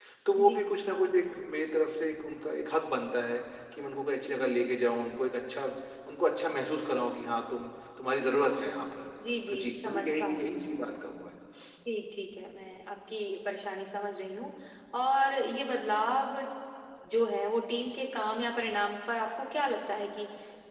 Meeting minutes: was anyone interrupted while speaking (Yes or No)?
Yes